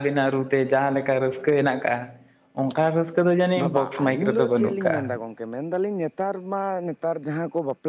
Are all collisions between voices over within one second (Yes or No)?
No